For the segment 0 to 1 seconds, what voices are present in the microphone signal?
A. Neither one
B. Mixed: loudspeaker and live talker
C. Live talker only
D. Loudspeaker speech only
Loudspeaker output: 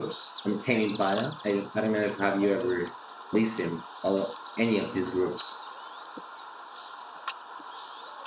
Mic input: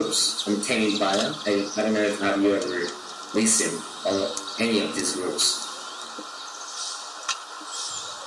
D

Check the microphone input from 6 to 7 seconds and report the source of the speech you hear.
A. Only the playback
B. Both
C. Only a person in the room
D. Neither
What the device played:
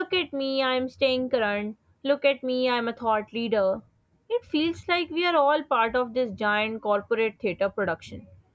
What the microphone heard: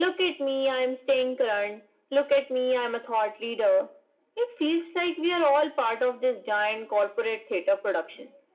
A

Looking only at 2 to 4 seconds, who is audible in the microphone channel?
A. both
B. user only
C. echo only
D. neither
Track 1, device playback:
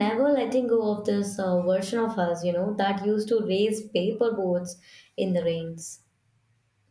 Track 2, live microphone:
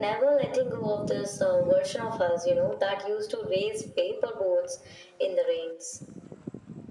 C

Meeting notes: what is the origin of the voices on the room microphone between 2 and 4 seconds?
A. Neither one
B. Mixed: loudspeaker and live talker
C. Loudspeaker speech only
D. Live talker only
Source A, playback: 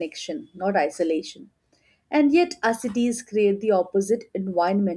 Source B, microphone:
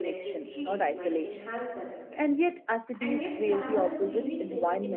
B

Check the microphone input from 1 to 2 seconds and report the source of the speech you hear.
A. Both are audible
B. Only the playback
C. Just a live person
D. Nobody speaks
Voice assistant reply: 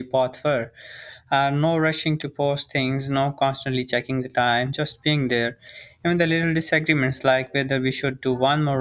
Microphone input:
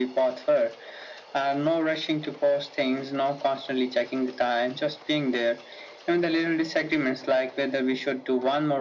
B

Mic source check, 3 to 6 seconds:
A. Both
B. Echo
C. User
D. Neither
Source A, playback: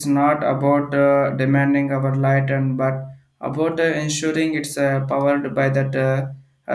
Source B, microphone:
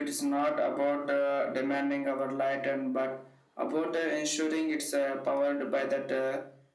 B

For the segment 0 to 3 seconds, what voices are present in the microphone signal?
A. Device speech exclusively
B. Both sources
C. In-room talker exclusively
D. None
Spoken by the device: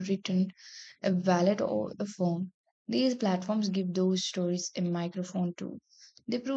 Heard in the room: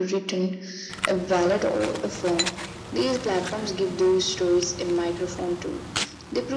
A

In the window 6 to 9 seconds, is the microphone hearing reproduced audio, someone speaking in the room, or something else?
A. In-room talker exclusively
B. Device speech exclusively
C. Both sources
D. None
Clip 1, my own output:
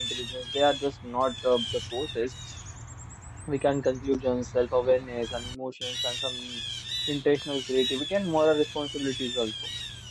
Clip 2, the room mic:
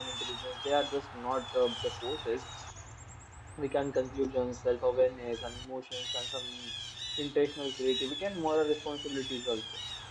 B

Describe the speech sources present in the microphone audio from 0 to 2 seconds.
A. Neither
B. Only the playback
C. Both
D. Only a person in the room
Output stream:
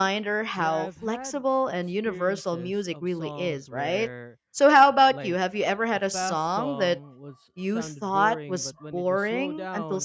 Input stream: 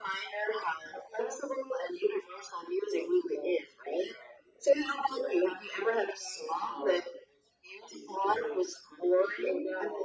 B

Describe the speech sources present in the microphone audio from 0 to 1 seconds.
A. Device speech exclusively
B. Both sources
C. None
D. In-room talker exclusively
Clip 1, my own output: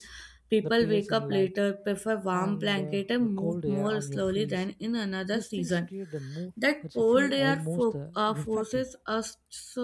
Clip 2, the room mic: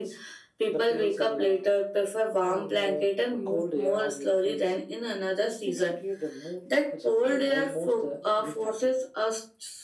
A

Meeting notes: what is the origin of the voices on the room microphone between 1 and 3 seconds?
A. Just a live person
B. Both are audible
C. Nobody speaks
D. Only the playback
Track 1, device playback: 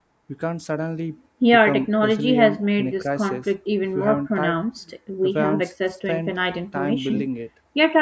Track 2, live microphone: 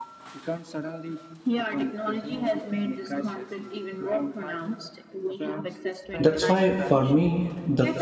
D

